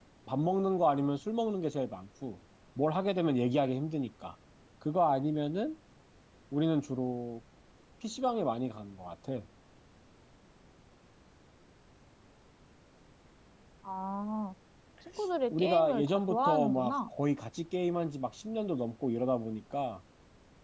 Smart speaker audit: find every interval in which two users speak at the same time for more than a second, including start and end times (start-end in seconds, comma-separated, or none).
15.5-17.1